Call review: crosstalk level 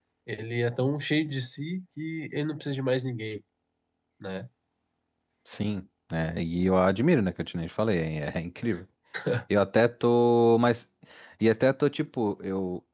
none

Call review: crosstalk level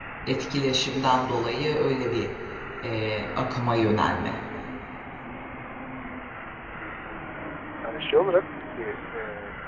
none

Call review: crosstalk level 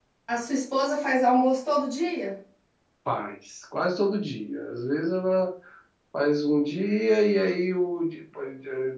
none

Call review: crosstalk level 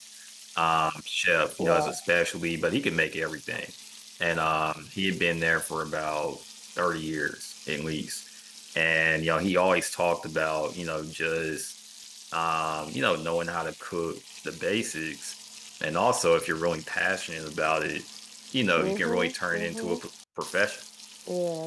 present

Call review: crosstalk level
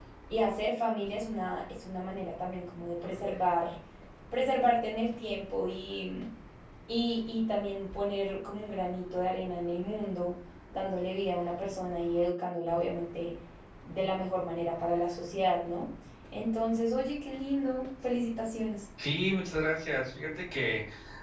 none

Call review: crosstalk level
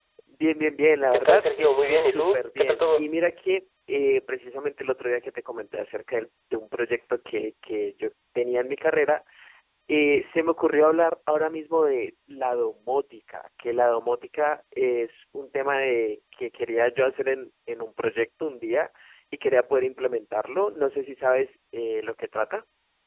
present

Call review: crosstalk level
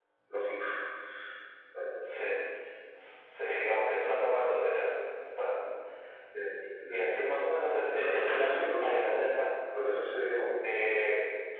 present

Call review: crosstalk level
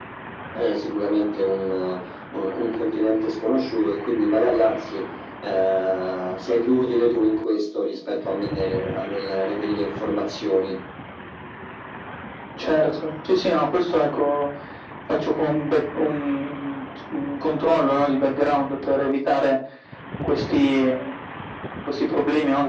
none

